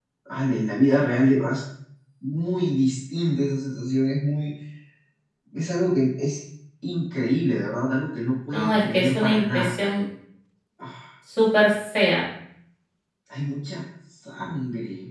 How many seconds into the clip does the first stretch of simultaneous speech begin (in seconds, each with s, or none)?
8.5 s